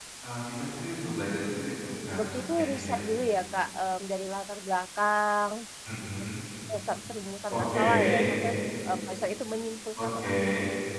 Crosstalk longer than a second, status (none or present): present